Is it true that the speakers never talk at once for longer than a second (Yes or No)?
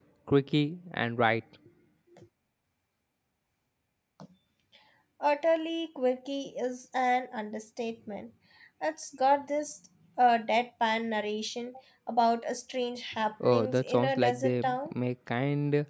No